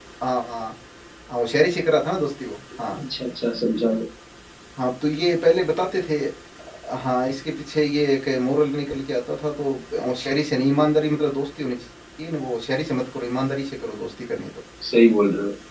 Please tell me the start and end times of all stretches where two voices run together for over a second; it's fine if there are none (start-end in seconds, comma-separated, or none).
none